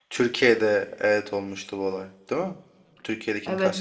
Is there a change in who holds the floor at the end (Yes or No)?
Yes